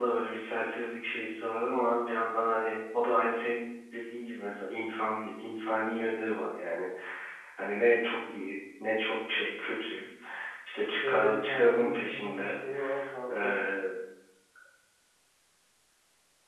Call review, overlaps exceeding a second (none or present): present